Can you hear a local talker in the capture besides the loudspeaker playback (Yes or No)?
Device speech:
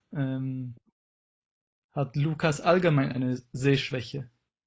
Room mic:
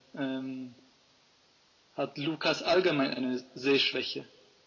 No